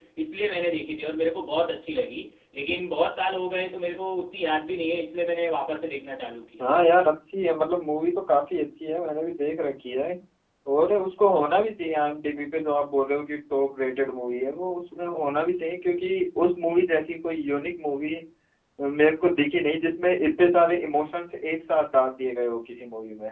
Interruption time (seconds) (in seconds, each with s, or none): none